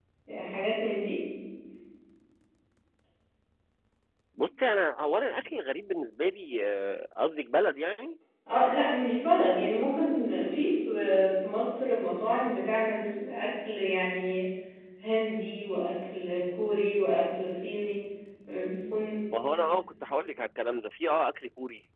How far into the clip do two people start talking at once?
none

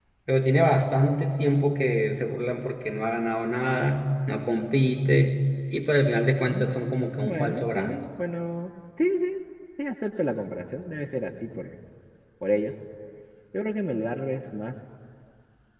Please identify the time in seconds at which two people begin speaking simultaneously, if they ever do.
6 s

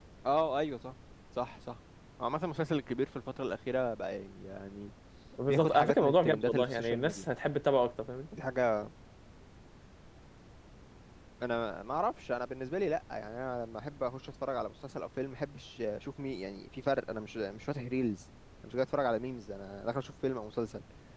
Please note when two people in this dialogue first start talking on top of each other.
5 s

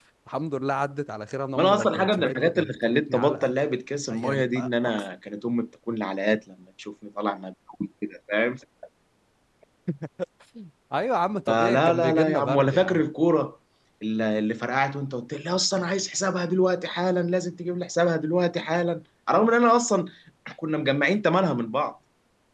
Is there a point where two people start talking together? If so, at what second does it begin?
2 s

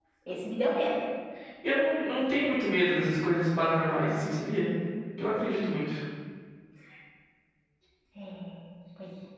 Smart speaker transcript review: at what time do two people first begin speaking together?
none

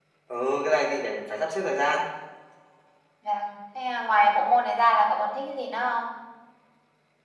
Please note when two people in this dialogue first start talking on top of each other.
none

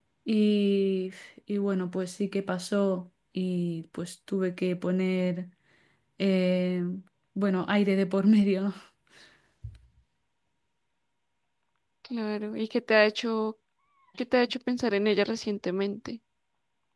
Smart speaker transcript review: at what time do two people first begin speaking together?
none

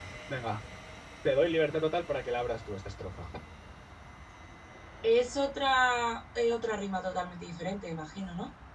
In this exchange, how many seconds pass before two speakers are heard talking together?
none

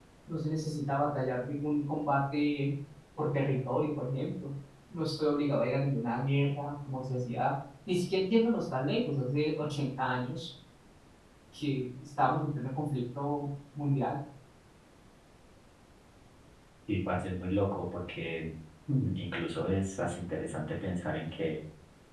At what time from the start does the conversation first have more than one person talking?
none

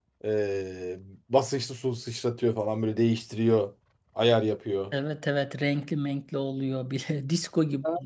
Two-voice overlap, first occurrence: none

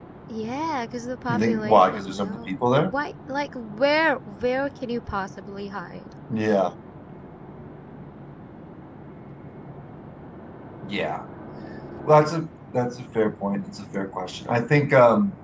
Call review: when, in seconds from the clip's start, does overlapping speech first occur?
1 s

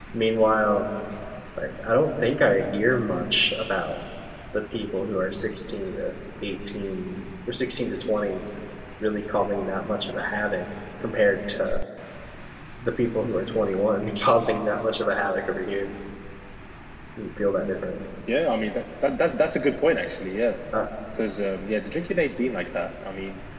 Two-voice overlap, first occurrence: none

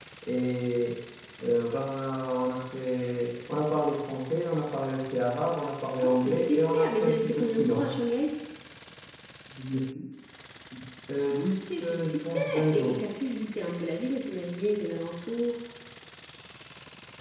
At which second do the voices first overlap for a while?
6 s

